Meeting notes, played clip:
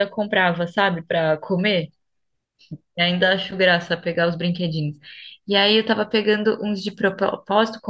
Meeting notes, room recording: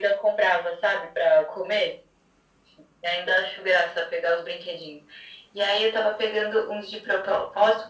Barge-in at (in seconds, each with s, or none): none